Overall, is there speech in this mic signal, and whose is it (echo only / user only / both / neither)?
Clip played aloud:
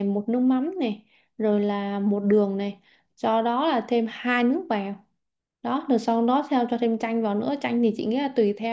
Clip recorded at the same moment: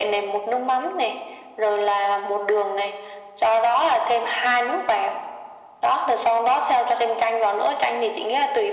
echo only